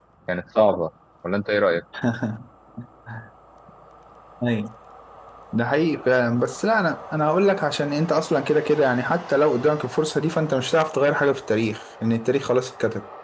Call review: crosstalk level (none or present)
none